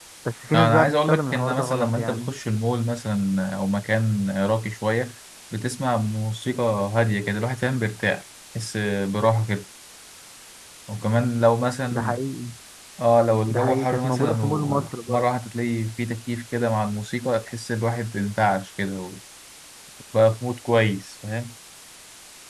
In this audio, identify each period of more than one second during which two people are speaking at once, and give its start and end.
0.5-2.3, 13.5-15.2

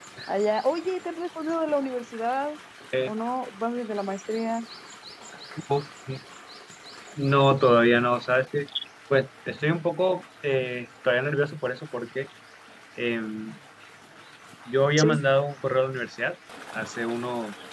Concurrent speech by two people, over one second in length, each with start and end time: none

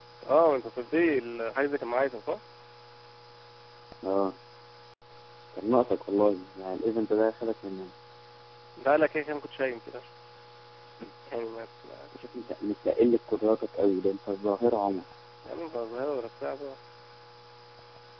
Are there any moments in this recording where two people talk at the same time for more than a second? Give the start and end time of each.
none

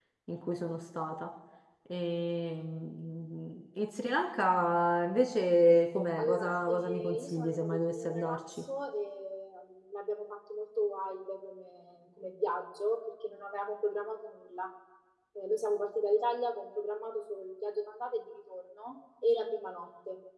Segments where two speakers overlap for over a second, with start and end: 6.2-8.6

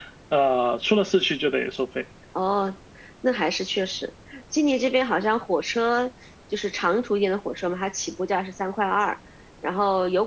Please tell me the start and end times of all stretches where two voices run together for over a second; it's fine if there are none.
none

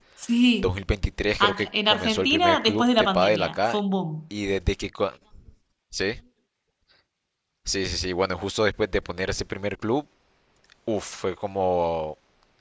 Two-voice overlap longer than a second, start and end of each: 1.4-3.8

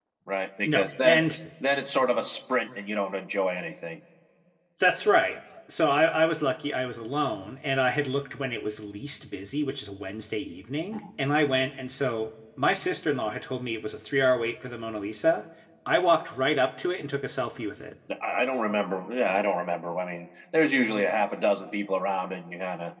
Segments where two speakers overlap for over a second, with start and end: none

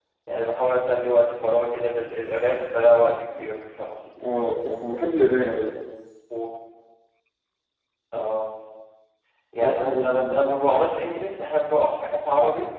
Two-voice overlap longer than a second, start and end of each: 9.6-10.9

